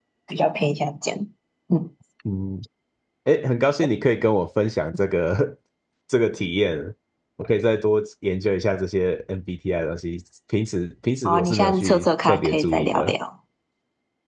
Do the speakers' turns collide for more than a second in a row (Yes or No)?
Yes